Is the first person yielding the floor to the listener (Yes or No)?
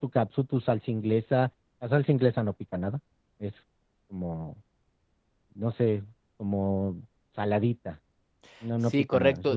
Yes